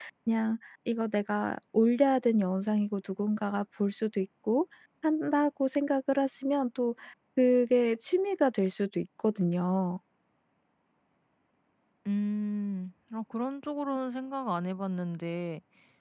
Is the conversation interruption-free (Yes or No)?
Yes